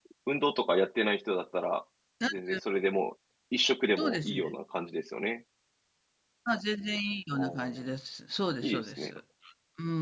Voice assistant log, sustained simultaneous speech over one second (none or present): none